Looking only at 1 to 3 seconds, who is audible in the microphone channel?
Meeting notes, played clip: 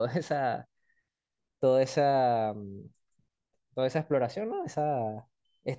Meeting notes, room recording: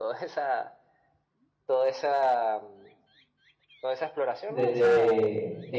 echo only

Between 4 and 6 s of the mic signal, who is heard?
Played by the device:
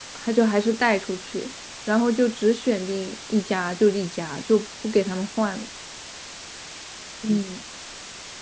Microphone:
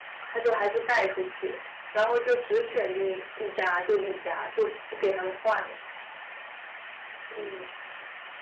echo only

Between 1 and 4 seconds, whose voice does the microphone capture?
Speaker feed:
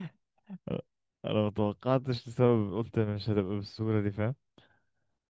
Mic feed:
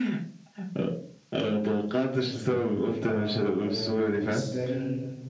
both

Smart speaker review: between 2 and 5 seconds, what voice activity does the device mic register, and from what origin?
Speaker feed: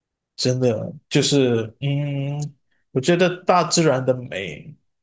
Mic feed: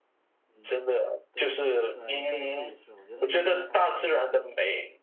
both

